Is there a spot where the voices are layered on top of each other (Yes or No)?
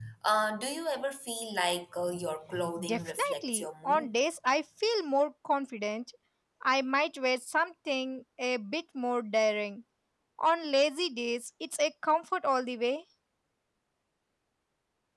Yes